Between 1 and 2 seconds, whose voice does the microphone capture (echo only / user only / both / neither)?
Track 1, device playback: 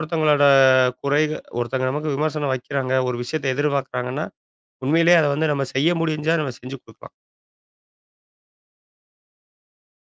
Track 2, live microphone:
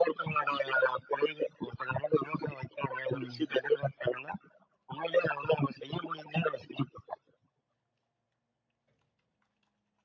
echo only